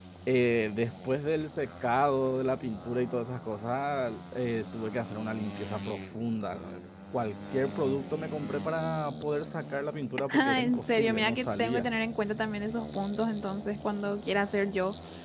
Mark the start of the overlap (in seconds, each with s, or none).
10.3 s